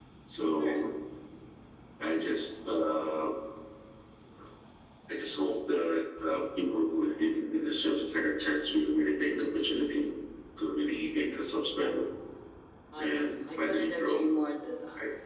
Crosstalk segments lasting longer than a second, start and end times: 13.0-14.3

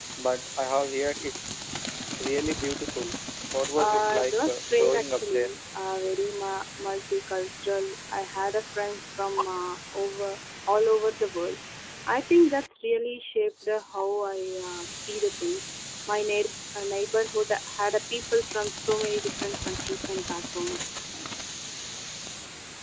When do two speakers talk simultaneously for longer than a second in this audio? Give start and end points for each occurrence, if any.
3.8-5.5

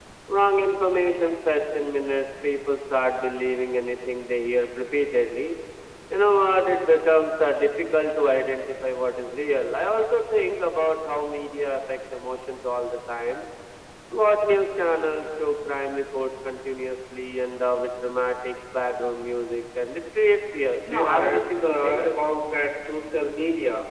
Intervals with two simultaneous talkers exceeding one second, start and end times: 20.8-22.0

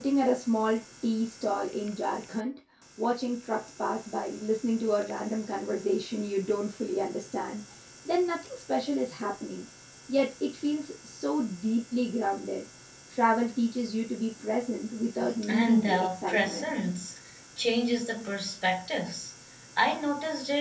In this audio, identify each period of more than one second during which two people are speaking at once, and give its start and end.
15.4-16.7

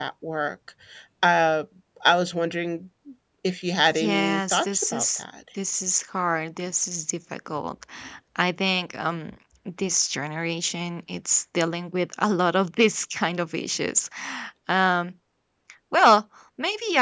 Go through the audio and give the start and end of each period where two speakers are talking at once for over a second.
4.0-5.2

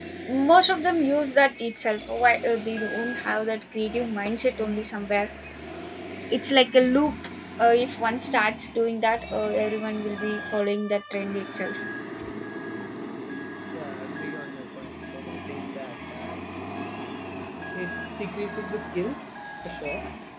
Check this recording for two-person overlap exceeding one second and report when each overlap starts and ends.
none

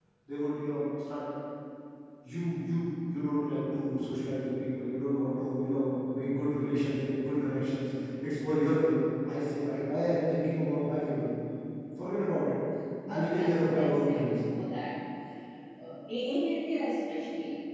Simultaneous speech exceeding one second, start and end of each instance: 13.1-14.3

